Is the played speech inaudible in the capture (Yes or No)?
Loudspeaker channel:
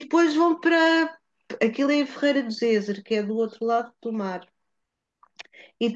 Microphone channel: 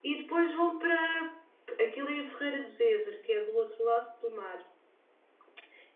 No